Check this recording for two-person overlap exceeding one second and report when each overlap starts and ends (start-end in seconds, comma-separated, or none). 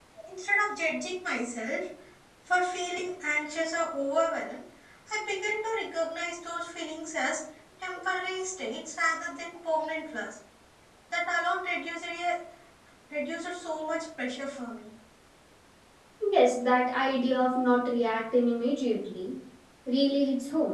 none